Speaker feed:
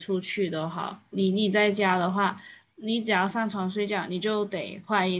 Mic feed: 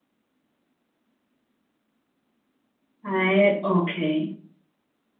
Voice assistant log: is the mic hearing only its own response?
No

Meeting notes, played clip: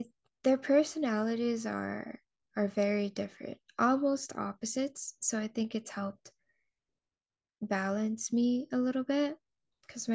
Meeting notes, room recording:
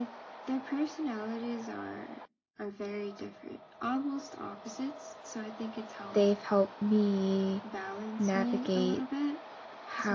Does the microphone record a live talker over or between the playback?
Yes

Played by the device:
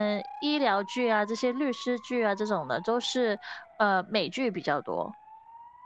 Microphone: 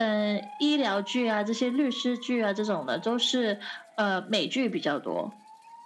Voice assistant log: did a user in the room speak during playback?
No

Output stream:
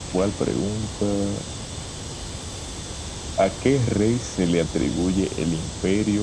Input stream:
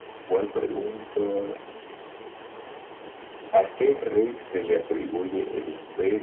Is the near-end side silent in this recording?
Yes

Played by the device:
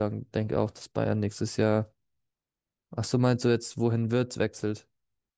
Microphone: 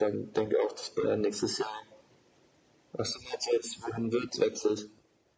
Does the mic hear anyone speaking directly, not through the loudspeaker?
No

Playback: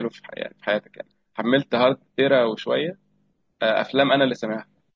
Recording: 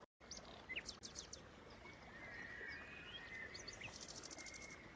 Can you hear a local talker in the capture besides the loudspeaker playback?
No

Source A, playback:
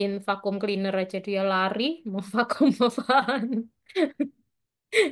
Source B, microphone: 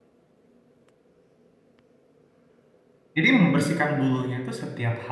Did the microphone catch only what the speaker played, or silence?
No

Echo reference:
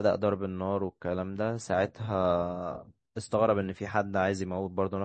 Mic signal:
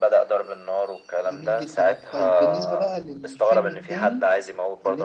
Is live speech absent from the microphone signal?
No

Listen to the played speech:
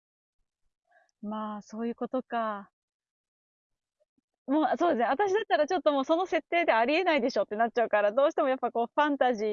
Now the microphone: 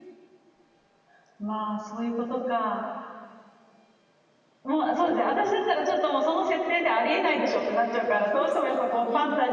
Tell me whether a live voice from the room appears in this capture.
Yes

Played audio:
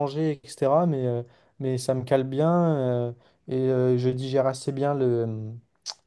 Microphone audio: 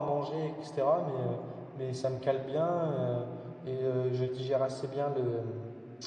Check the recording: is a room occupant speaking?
No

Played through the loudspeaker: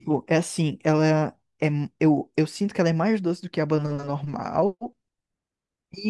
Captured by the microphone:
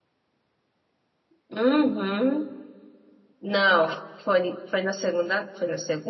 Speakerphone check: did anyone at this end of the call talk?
Yes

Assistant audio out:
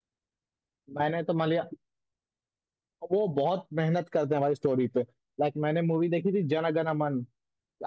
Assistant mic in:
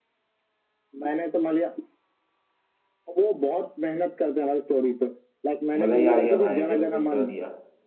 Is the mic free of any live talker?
No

